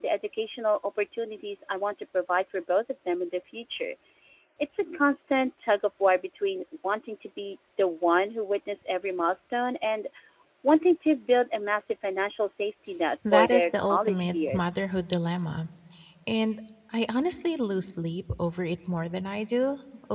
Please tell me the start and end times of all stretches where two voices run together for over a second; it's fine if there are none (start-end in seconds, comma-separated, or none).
13.3-14.8